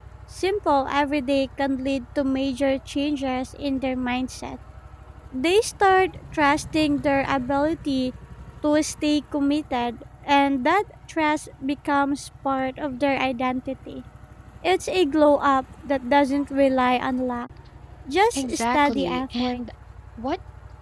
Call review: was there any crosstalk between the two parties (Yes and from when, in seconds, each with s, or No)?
Yes, from 18.3 s